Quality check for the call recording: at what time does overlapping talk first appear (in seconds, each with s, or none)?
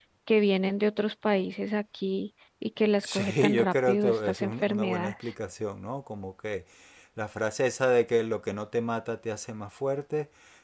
3.0 s